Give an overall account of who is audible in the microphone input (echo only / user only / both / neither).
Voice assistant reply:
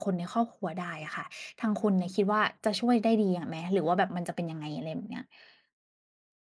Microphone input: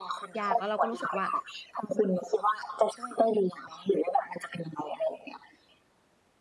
both